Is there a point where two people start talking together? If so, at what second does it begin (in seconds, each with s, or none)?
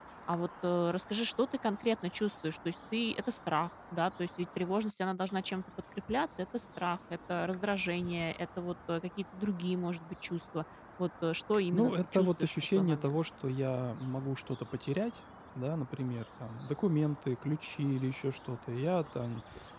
11.7 s